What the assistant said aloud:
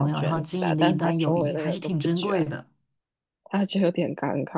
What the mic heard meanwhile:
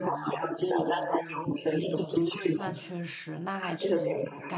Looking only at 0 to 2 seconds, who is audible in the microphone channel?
echo only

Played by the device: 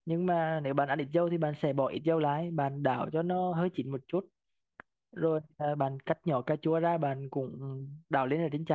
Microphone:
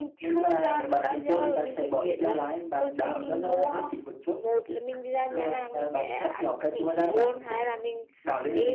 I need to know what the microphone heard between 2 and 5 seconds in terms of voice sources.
both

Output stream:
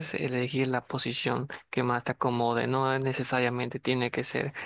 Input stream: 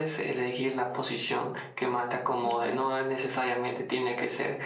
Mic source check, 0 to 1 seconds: echo only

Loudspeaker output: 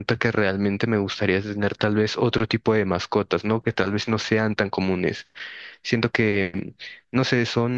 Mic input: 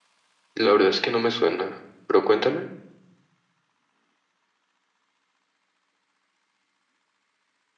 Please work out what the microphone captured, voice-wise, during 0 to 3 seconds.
user only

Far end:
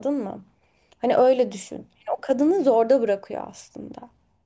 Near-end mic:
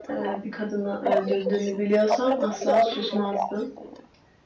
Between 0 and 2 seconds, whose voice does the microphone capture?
both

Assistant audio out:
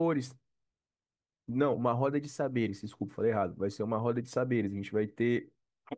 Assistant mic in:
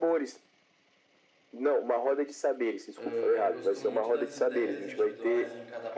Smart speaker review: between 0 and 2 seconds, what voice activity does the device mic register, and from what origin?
echo only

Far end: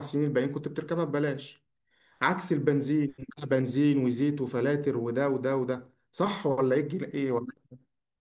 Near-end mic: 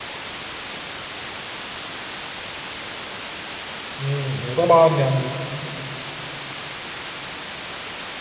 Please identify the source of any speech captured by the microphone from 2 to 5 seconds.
user only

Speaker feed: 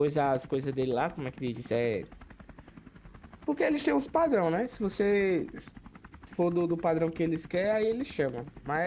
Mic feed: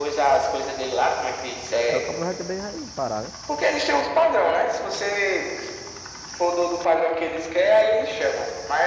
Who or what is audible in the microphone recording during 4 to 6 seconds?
echo only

